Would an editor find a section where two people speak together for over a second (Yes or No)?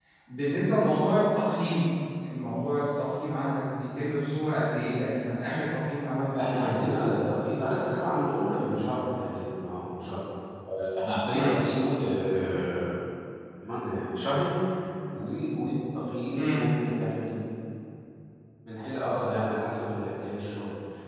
No